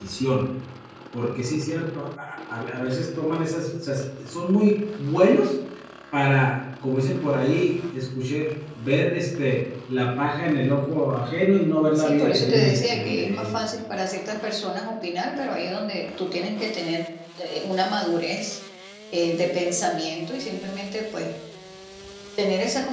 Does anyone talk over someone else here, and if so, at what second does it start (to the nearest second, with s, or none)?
12 s